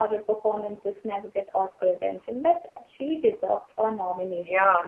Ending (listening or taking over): taking over